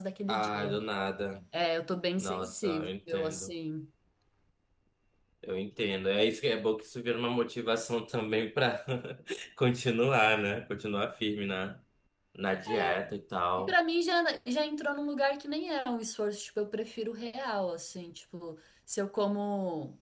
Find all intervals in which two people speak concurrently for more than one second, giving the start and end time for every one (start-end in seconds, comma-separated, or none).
2.2-3.5